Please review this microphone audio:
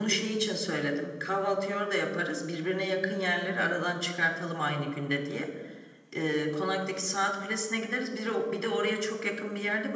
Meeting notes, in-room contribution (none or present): none